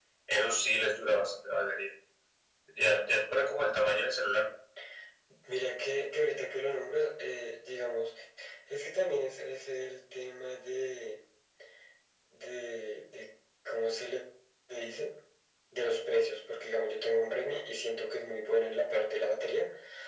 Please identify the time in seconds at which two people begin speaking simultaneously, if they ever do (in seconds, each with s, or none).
none